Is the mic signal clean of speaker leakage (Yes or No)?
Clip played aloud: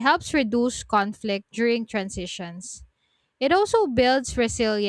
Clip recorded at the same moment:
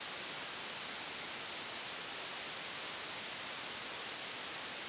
Yes